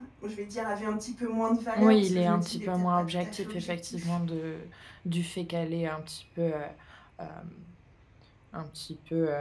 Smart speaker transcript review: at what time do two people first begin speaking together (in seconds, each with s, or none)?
1.8 s